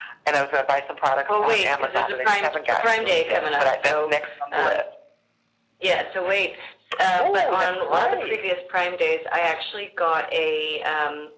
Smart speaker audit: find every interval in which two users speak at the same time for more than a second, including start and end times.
1.3-4.1, 7.2-8.4

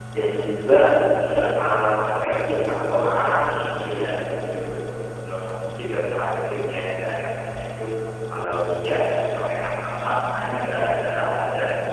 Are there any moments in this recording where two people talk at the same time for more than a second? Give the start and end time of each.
none

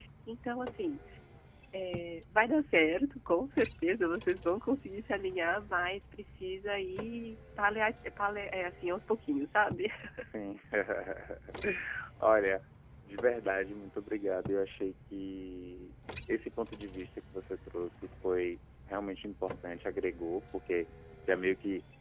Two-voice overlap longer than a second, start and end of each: none

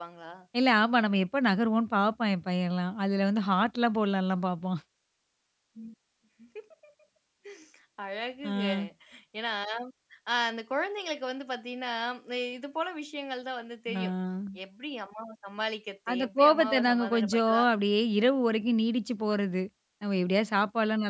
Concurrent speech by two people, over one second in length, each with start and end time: 16.1-17.6

